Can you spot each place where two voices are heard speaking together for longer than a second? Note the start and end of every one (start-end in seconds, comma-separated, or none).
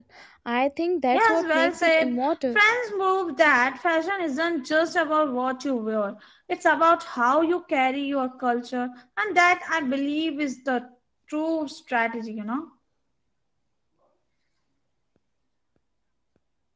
1.1-2.6